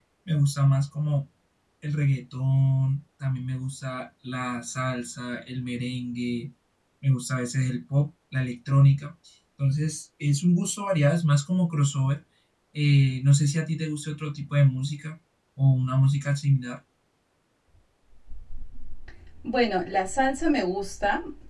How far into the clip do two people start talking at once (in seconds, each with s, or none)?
none